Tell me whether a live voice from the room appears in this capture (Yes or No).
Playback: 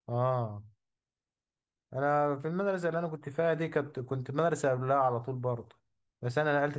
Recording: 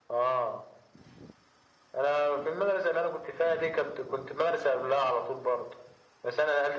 No